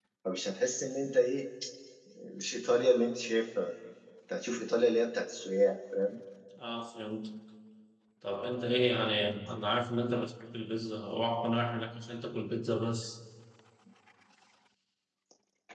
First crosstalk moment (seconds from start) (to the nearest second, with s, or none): none